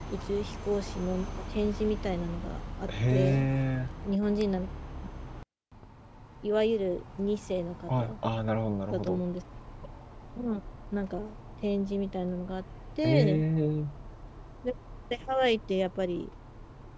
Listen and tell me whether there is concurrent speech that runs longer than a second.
No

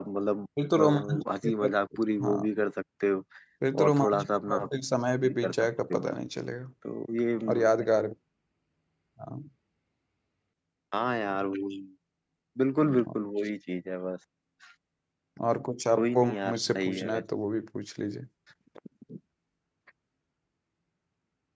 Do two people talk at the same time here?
Yes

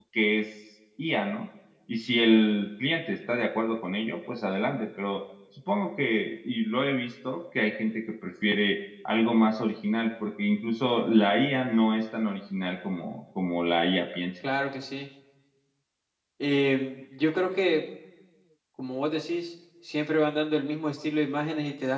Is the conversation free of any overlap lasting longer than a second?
Yes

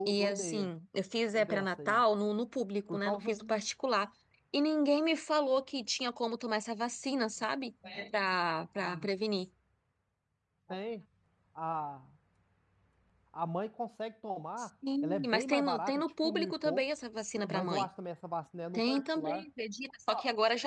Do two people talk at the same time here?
Yes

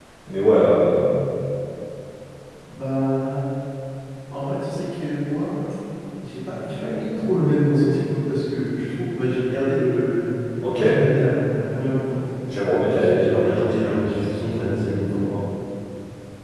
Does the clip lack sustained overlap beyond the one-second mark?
No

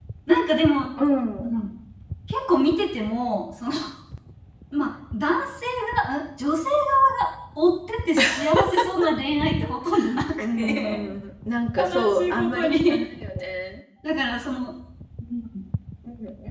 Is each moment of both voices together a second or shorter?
No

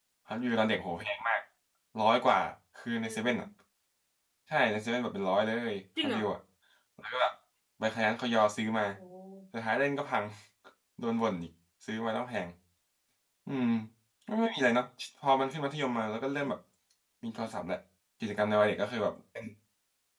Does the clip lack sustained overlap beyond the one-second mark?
Yes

